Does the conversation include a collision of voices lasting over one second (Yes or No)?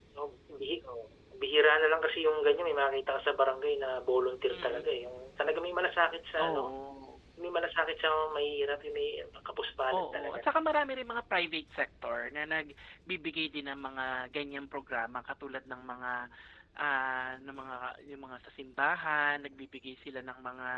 No